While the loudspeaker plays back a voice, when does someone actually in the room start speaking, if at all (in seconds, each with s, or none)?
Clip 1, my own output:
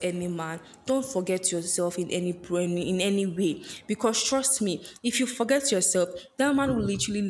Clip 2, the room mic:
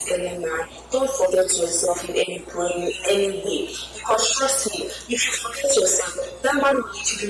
none